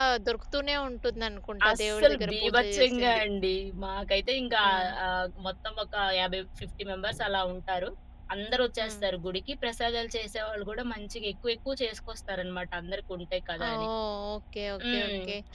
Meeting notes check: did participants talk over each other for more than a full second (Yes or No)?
Yes